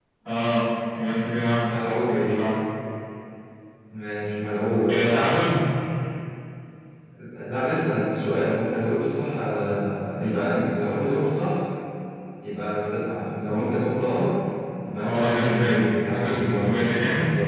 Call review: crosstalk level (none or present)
present